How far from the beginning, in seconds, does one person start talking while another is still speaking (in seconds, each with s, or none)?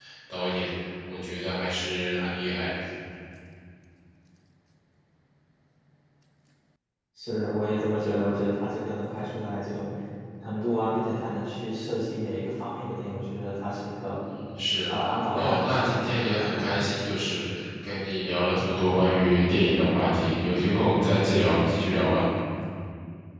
15.3 s